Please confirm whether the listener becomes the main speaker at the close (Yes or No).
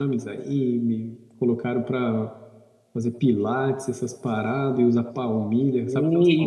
Yes